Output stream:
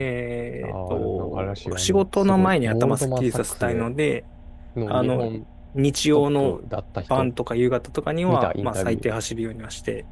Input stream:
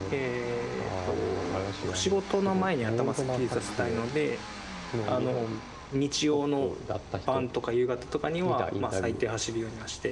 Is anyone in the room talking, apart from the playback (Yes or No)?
No